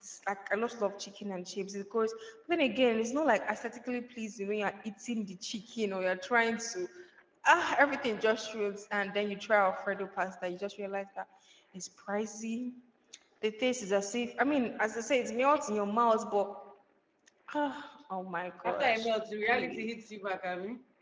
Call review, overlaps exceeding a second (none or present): none